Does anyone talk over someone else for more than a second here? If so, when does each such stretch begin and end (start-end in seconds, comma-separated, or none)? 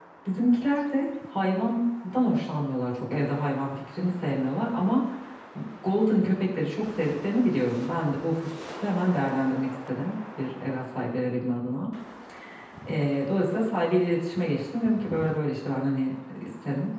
none